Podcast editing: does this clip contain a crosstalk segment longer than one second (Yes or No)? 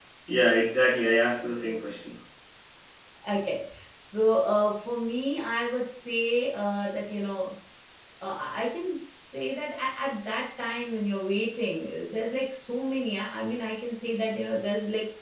No